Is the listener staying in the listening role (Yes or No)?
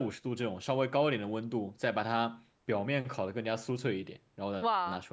No